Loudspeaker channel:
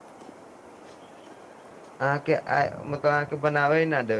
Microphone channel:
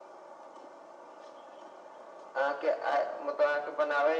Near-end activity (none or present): none